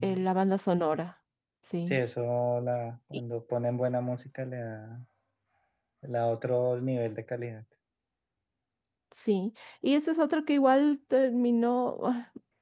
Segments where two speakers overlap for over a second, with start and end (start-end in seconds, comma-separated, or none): none